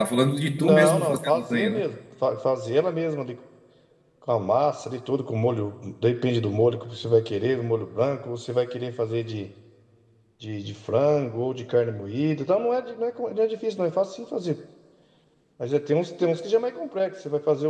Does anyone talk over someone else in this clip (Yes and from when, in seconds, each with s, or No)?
Yes, from 0.6 s